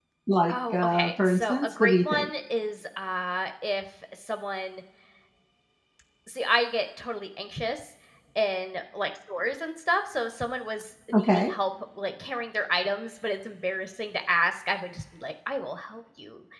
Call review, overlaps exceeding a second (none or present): present